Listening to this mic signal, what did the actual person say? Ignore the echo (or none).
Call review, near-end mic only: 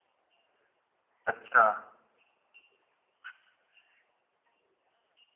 अच्छा।